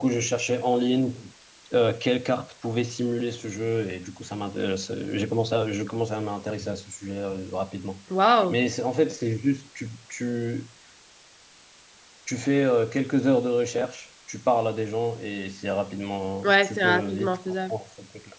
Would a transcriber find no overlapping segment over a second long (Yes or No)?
No